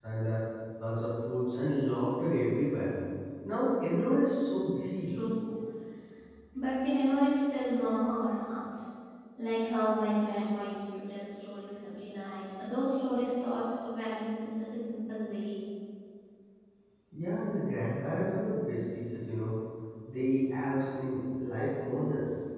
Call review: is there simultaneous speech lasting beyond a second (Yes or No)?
No